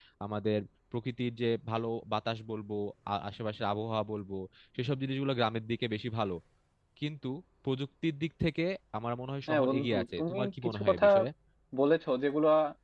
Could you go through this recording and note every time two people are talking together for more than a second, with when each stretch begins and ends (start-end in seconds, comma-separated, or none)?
9.5-11.1